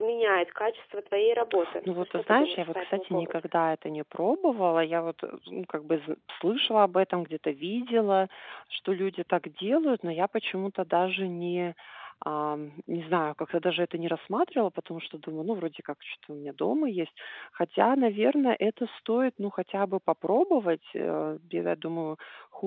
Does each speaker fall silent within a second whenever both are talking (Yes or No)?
No